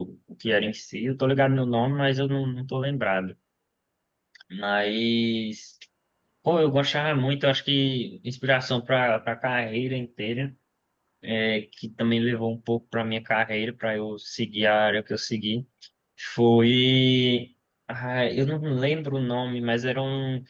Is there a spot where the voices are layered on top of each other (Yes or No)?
No